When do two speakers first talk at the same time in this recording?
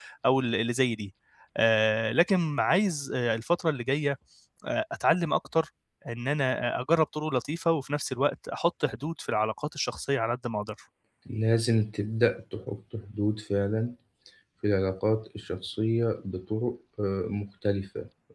none

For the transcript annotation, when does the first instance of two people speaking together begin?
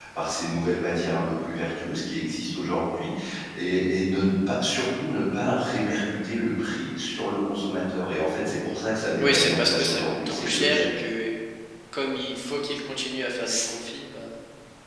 9.2 s

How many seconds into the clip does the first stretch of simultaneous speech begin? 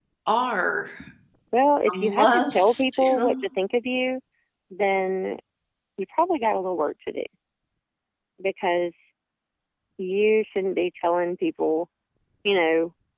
1.9 s

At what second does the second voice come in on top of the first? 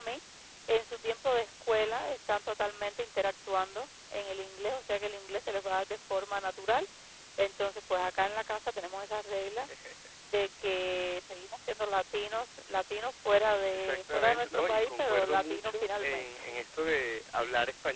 13.7 s

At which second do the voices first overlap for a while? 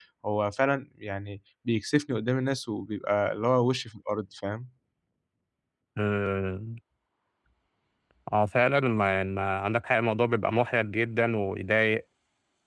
none

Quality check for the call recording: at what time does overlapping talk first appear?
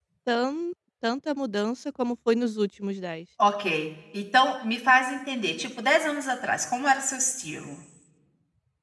none

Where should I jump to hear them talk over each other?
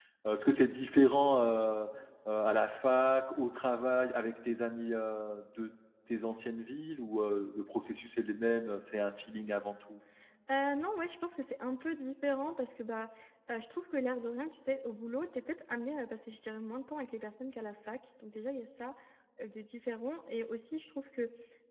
none

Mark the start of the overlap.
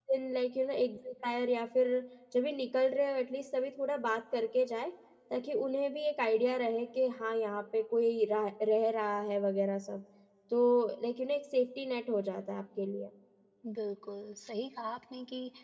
none

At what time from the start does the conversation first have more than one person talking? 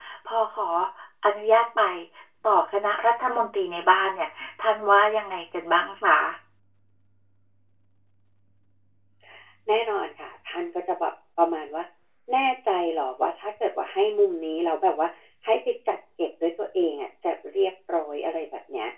none

